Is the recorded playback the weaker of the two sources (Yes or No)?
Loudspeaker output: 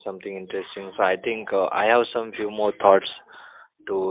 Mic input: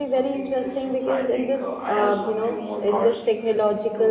Yes